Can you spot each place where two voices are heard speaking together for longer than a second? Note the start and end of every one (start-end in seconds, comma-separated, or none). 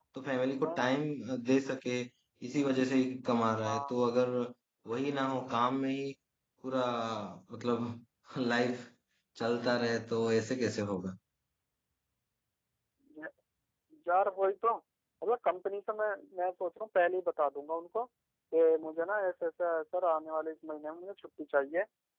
none